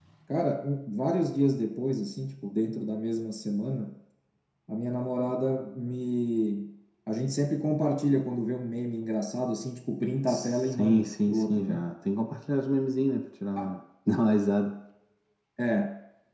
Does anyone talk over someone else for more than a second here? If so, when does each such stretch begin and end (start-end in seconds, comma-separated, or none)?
10.3-11.9